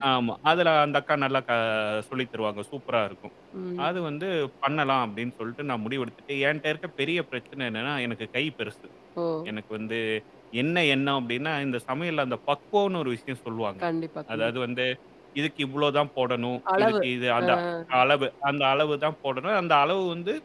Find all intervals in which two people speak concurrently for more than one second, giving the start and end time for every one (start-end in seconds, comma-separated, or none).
none